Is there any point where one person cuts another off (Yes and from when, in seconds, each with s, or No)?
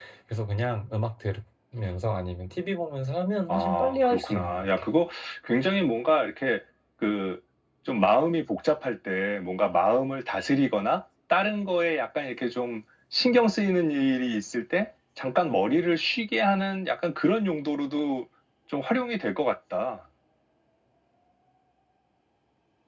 Yes, from 3.5 s